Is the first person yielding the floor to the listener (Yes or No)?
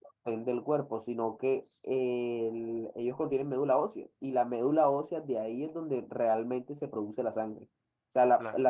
No